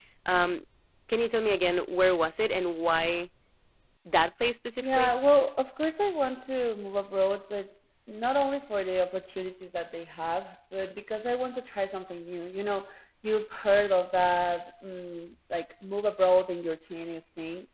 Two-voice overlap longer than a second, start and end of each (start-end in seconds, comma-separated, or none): none